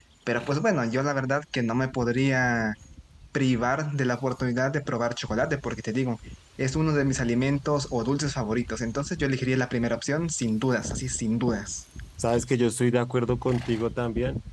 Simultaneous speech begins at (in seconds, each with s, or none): none